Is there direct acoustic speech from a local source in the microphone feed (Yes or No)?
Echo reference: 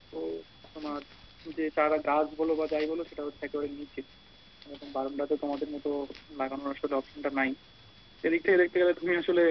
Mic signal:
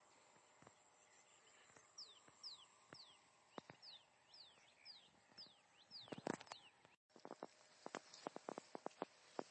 No